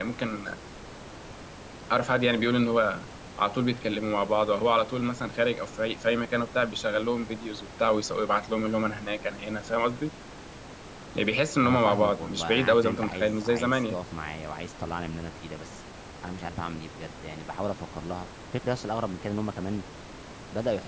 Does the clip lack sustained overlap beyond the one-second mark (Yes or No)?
No